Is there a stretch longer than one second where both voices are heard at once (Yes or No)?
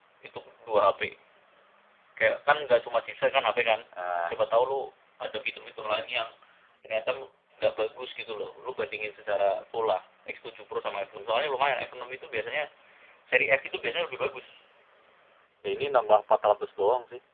No